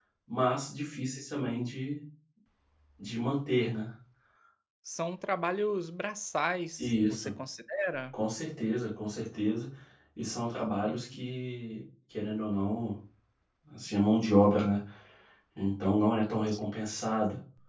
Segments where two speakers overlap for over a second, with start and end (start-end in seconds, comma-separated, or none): none